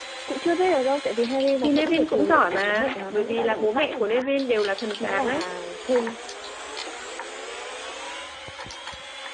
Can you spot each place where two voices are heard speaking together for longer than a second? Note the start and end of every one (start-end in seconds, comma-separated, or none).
1.6-4.3